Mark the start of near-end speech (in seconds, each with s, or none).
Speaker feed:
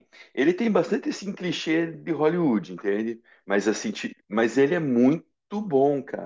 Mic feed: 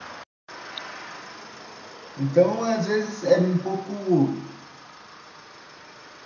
2.1 s